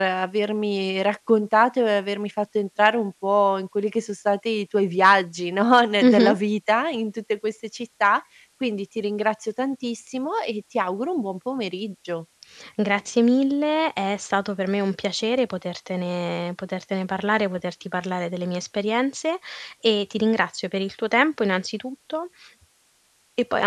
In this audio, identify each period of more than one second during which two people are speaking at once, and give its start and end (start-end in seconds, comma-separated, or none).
none